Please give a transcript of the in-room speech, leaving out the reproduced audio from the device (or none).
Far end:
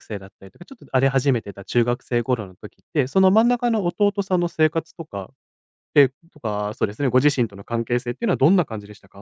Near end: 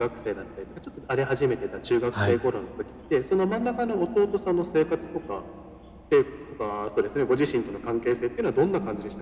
はい。